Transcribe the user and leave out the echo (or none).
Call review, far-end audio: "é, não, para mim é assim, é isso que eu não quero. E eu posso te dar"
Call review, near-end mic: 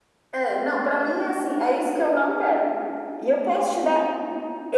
none